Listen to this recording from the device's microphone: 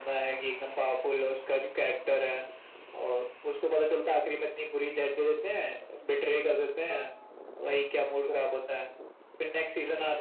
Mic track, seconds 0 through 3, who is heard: echo only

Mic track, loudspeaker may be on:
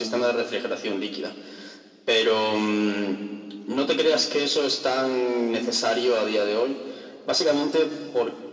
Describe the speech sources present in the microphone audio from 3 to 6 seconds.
echo only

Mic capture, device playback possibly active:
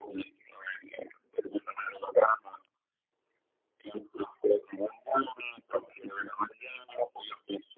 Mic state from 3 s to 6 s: echo only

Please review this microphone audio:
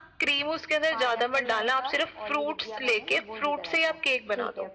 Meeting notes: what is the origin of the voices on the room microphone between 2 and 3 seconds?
both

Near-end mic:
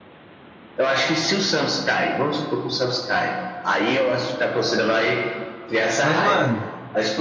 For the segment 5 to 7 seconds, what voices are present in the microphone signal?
both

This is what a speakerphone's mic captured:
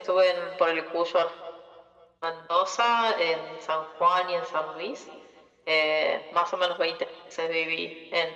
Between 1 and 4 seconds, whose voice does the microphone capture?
echo only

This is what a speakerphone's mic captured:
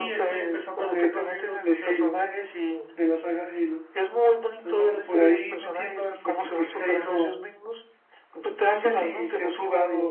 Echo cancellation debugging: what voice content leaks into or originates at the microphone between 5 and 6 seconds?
both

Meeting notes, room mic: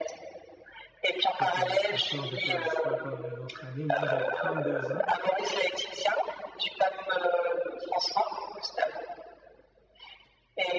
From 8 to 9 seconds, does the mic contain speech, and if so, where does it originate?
echo only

